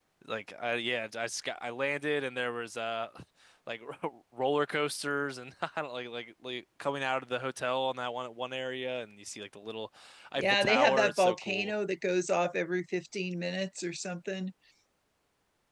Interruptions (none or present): present